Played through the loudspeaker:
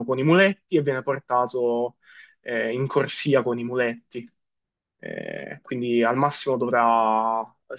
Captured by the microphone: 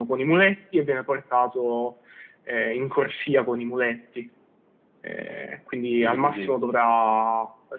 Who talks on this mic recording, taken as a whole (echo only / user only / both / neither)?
both